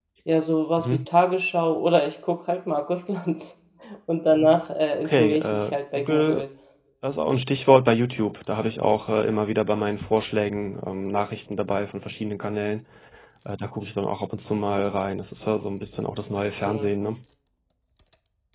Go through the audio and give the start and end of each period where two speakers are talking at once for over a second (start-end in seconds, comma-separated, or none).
5.0-6.4